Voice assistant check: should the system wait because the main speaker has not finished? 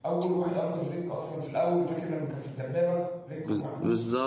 No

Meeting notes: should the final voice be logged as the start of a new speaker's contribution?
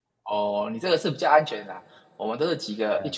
No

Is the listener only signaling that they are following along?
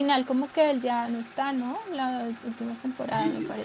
No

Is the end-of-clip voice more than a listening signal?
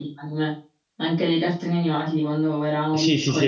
Yes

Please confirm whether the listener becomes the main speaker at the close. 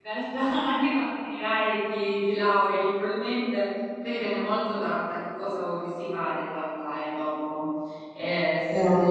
No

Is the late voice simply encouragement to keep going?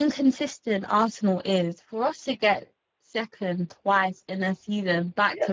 No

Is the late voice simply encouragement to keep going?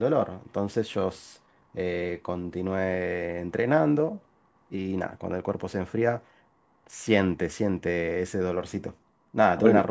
Yes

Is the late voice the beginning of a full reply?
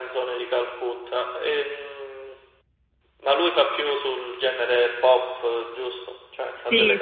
Yes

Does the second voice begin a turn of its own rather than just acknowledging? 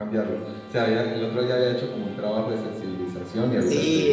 Yes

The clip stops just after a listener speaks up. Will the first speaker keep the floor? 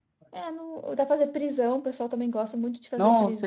No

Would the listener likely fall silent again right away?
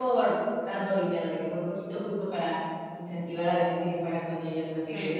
Yes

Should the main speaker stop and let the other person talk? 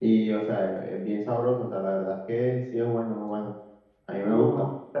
No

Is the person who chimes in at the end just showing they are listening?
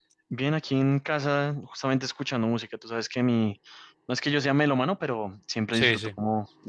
Yes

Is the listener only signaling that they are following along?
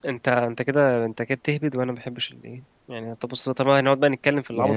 No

